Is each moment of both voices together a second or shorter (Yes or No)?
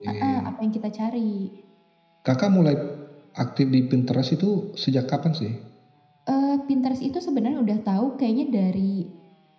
Yes